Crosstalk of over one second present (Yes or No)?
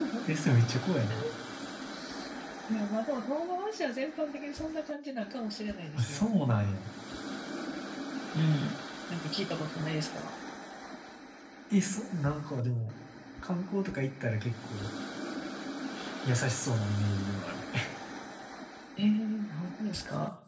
No